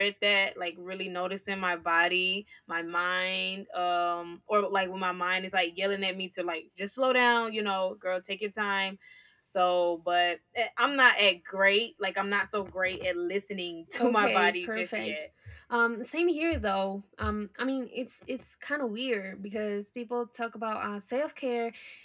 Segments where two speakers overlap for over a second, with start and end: 14.0-15.2

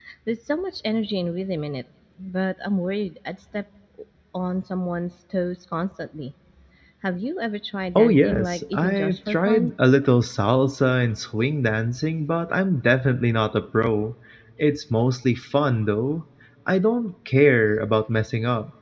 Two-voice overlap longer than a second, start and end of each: 8.0-9.7

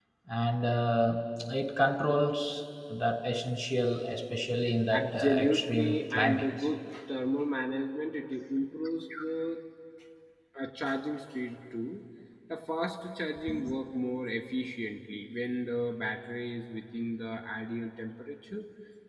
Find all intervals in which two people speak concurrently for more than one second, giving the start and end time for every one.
4.9-6.5

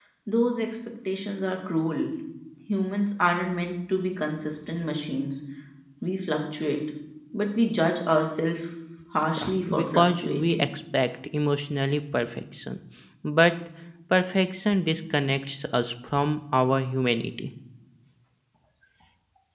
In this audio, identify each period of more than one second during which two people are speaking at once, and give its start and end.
9.4-10.7

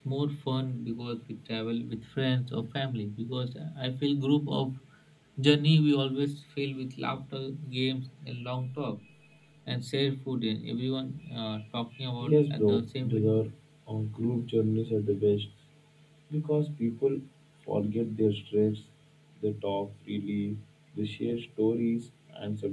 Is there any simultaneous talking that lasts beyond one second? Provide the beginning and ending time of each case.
12.2-13.4

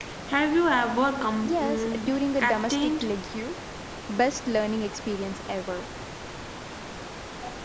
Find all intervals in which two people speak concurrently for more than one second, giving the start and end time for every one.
1.4-3.0

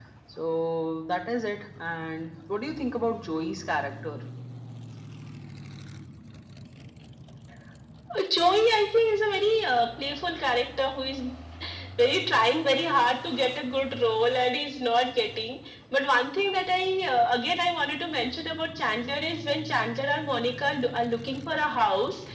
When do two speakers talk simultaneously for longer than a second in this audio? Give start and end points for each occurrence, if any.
none

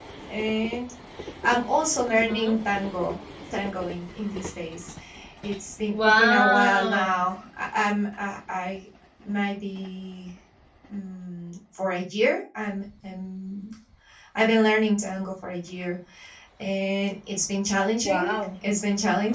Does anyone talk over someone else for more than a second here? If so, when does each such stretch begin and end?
5.9-7.2

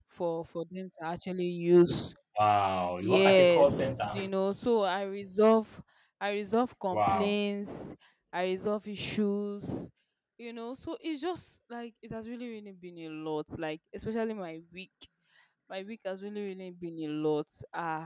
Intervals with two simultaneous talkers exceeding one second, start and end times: 3.0-4.3

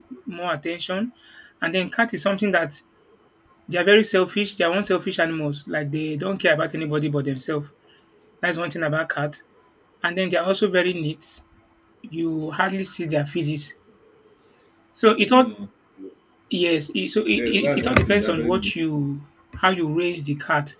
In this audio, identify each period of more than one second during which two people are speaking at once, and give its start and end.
17.4-18.7

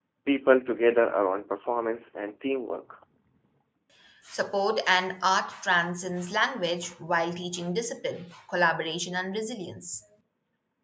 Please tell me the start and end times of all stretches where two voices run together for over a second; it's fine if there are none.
none

